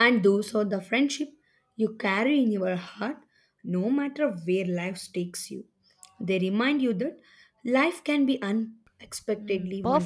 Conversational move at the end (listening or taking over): taking over